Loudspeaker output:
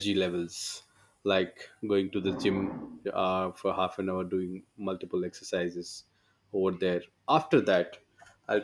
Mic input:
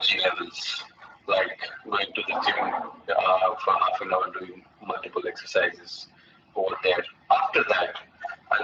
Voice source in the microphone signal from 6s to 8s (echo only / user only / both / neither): echo only